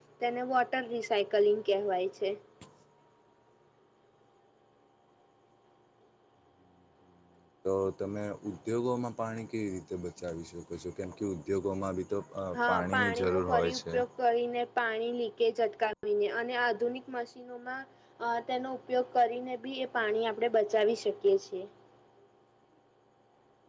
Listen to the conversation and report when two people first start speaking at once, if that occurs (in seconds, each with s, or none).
12.5 s